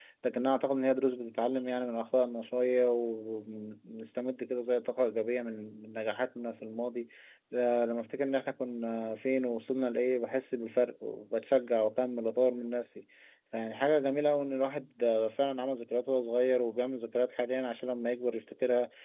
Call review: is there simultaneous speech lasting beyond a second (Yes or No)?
No